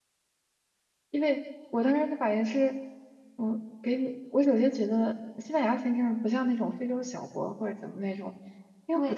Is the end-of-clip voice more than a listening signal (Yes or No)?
Yes